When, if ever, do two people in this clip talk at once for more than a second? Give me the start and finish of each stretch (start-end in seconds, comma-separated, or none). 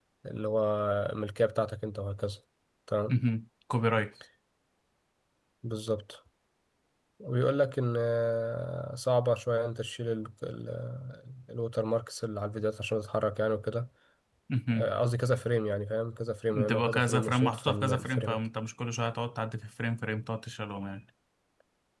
16.5-18.4